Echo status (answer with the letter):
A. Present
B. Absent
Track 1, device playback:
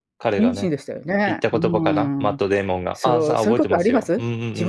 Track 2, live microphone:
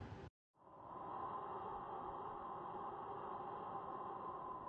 B